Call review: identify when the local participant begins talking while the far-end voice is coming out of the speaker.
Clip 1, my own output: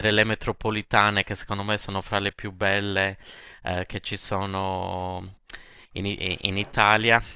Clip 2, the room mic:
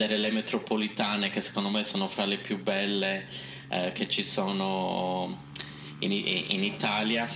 none

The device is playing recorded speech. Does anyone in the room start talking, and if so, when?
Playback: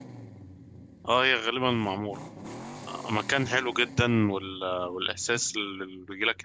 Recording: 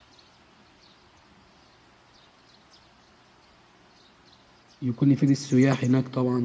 4.8 s

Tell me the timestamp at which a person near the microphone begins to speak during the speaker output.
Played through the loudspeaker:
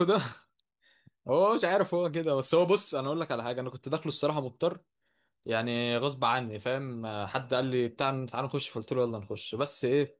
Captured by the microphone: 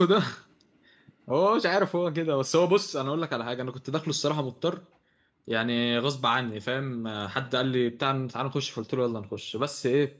none

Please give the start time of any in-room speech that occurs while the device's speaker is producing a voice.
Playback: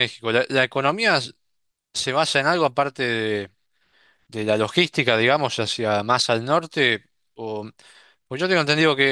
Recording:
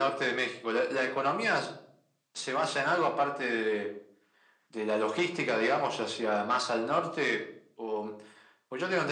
none

